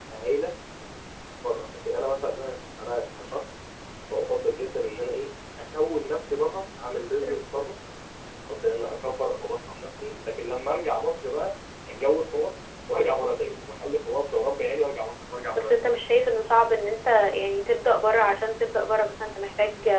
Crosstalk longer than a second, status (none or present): none